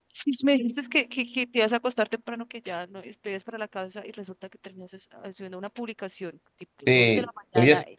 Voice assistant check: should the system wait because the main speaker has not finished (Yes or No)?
No